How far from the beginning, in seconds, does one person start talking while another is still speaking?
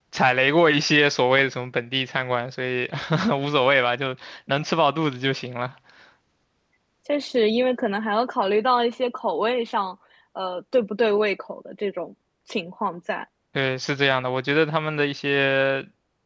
none

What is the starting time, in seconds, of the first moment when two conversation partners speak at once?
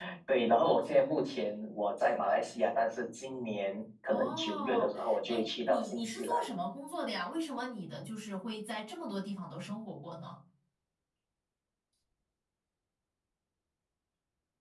4.1 s

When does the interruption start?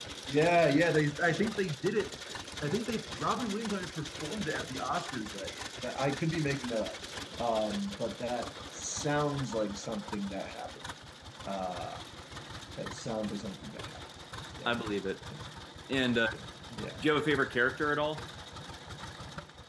none

